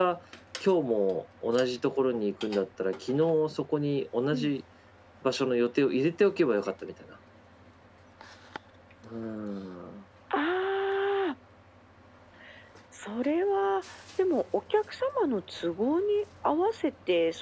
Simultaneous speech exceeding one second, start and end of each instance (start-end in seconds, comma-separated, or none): none